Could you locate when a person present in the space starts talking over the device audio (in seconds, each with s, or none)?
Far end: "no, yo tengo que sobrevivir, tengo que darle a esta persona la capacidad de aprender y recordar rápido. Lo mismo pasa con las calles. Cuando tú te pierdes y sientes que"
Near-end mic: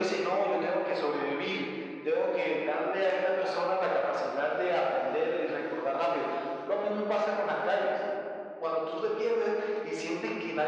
none